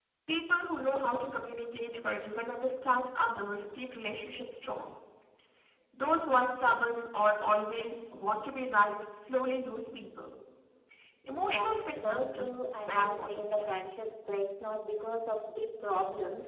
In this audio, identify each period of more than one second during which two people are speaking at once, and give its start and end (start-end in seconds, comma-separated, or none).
11.5-13.7